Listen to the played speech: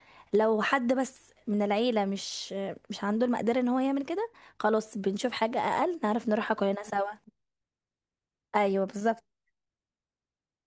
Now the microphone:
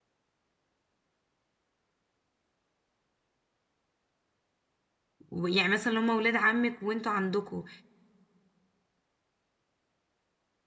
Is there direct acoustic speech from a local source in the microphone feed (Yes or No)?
Yes